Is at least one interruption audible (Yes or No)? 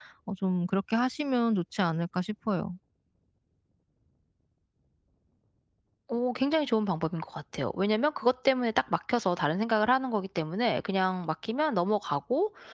No